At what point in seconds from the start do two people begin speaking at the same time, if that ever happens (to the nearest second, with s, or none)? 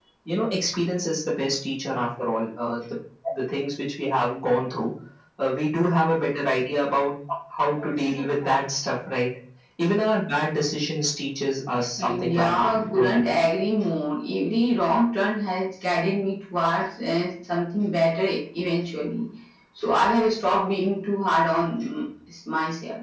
12 s